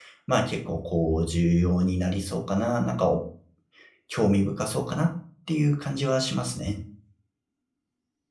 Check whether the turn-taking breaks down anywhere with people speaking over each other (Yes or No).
No